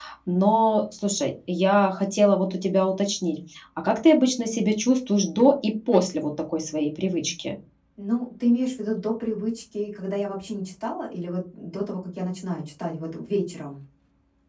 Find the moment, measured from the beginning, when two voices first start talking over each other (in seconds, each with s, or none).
none